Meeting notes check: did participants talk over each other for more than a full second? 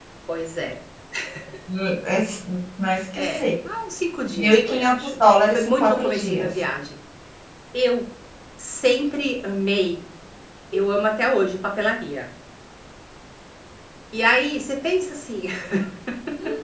Yes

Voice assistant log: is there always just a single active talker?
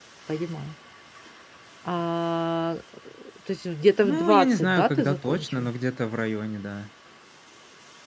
No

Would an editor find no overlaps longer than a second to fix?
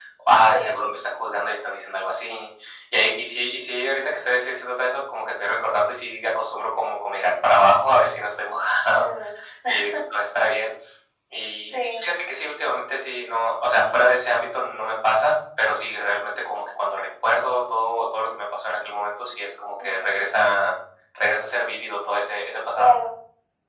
Yes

